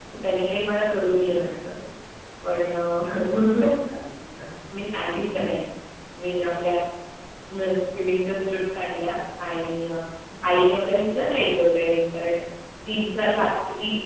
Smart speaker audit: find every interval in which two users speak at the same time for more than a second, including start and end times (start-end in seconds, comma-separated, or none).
none